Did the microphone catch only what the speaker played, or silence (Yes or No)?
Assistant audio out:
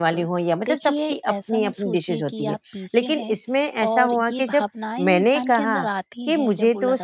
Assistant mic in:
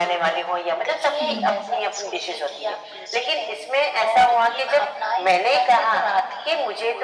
No